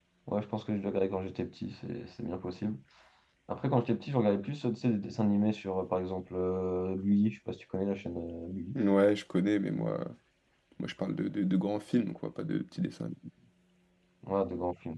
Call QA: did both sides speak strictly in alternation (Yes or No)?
Yes